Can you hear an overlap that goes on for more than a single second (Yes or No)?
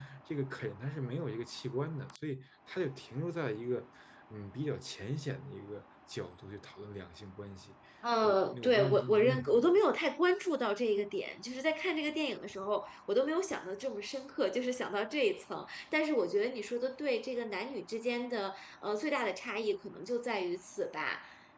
Yes